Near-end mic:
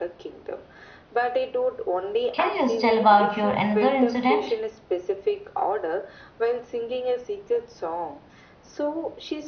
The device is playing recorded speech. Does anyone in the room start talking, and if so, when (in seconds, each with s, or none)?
2.3 s